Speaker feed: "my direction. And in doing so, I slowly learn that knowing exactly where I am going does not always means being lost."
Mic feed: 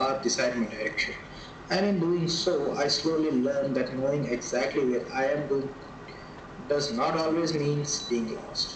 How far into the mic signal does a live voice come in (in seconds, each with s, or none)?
none